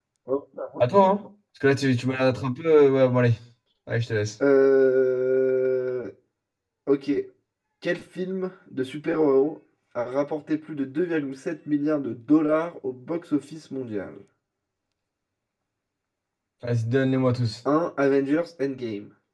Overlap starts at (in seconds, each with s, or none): none